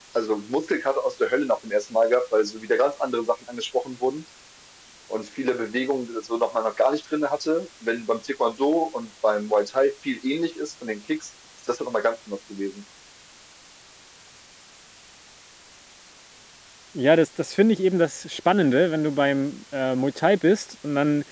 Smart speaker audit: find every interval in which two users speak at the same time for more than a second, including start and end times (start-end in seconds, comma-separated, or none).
none